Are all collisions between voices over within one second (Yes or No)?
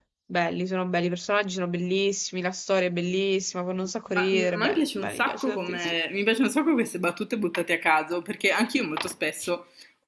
No